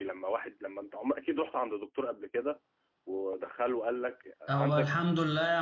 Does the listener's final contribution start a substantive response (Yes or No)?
Yes